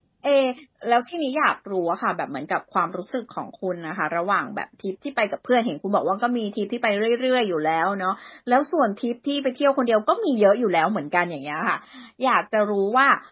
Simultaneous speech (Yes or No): No